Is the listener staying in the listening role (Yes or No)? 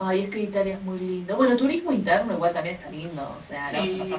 No